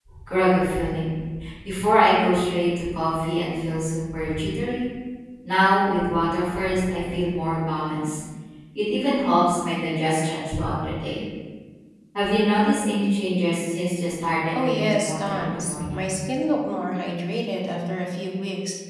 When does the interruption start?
14.5 s

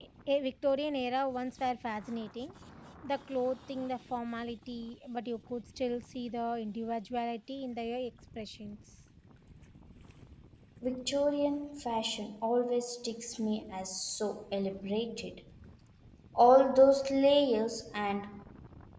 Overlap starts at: none

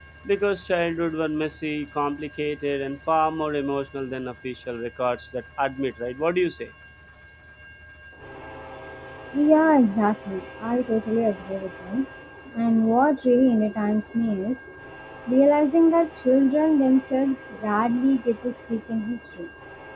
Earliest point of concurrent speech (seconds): none

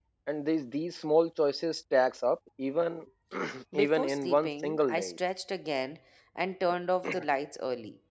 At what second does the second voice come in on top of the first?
3.7 s

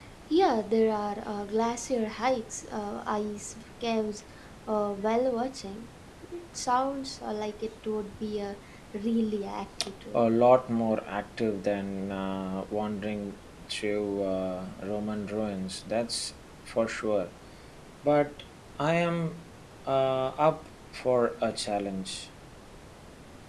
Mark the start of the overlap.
none

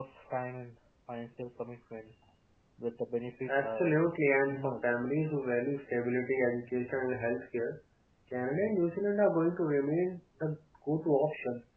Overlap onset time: 3.5 s

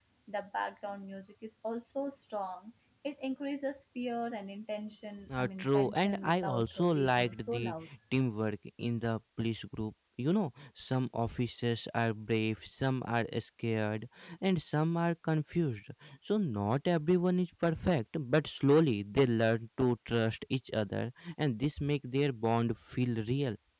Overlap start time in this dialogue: 5.3 s

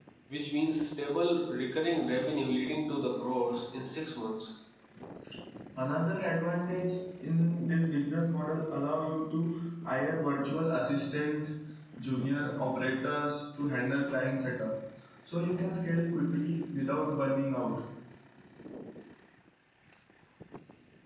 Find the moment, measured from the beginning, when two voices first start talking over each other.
none

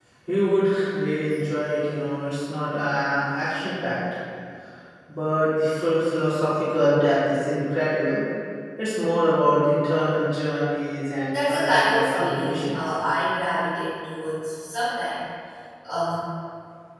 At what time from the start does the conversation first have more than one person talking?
11.3 s

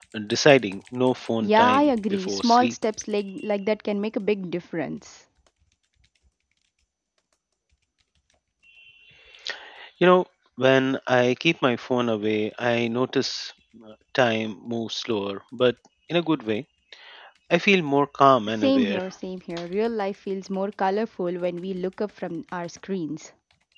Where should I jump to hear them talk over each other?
1.4 s

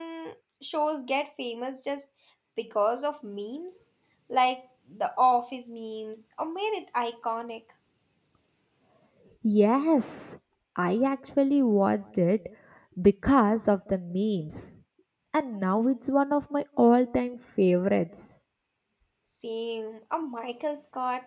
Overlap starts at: none

